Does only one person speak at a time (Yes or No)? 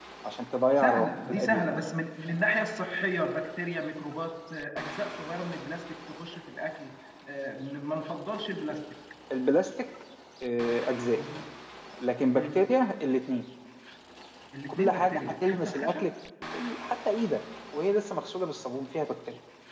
No